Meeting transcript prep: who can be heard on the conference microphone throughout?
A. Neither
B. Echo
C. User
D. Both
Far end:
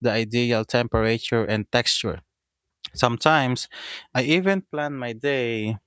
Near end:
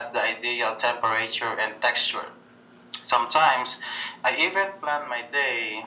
B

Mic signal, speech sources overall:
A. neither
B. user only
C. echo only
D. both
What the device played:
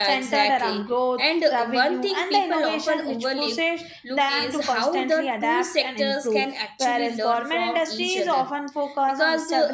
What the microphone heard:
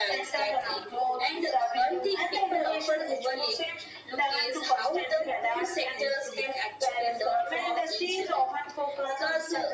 C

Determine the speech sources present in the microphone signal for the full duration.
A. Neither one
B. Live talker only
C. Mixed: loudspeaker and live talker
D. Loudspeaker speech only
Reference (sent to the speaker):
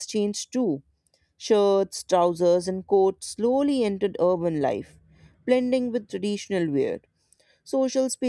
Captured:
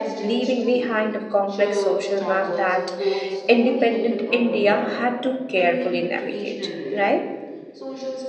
C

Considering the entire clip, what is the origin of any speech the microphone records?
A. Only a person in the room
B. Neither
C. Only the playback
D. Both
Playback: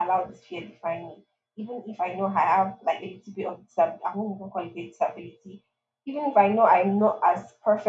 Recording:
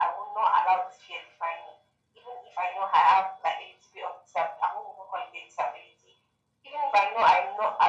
C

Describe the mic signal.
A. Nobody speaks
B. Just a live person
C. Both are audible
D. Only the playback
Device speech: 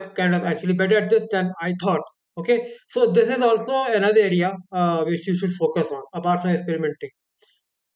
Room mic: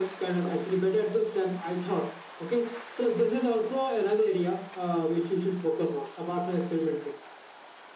D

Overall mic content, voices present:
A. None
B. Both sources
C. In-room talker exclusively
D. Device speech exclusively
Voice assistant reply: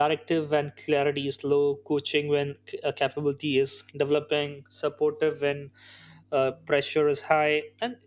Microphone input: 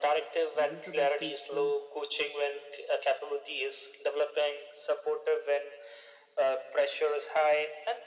B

